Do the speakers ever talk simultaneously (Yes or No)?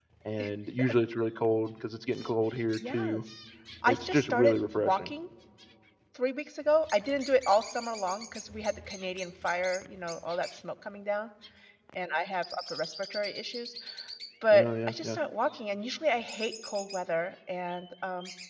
Yes